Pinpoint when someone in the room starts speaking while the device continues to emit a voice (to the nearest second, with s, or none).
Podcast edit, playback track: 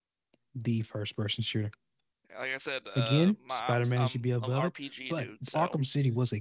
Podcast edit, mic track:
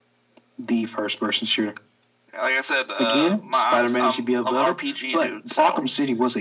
none